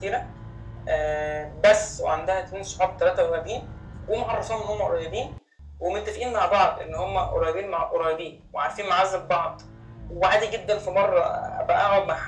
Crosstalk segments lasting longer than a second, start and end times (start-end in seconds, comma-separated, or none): none